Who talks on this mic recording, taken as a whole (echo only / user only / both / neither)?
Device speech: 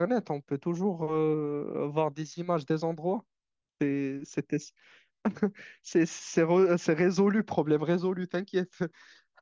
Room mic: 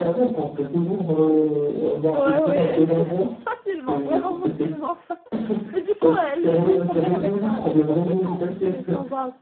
both